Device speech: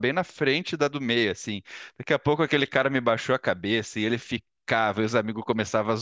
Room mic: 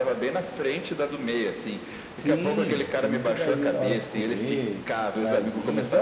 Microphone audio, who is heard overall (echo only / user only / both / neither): both